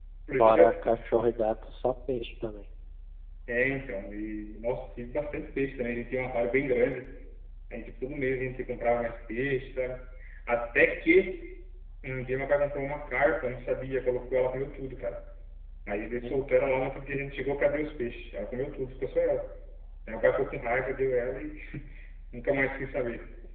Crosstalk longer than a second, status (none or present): none